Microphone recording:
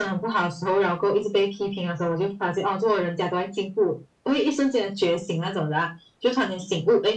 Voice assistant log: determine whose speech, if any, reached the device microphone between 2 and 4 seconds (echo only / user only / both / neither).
echo only